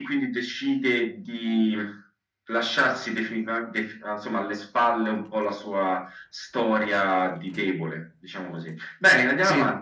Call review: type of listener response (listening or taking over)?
listening